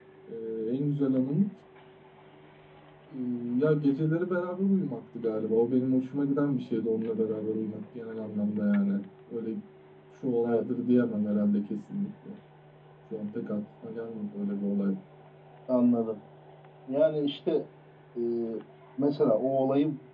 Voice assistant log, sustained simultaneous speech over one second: none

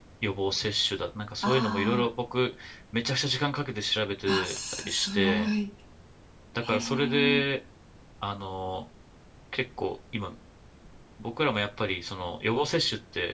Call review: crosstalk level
present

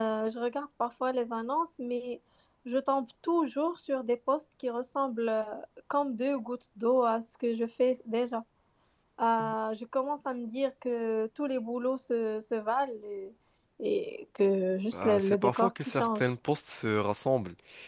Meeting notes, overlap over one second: present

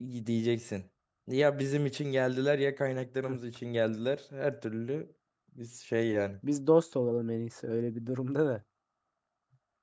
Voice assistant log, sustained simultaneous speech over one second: none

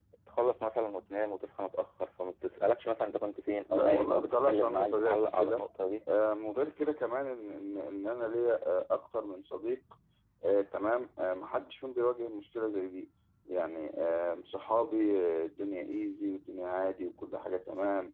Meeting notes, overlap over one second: present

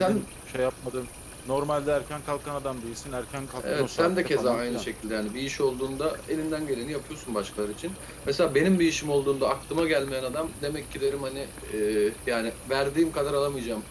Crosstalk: present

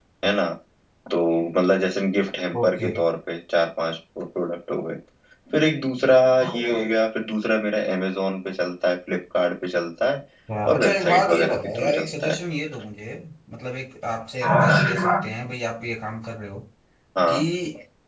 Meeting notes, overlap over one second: present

